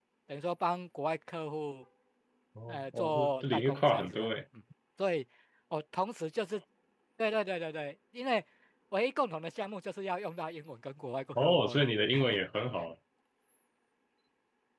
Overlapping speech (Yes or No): Yes